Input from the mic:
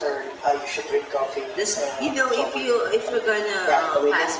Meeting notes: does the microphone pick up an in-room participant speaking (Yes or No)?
Yes